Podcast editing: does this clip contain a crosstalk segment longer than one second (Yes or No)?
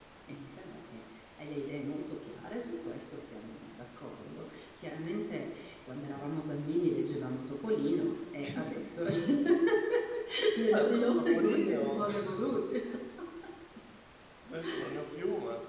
Yes